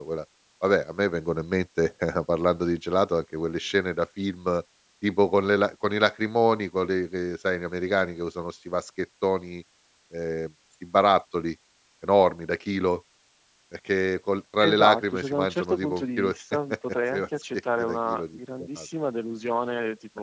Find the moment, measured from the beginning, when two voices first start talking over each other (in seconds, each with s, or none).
14.6 s